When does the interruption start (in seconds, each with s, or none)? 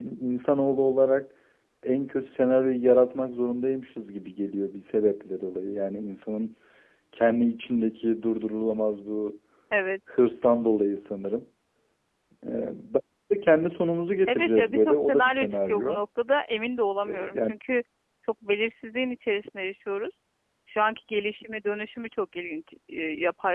14.2 s